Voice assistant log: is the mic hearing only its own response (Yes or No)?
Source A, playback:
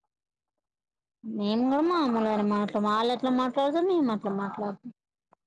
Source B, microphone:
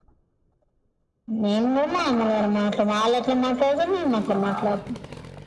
Yes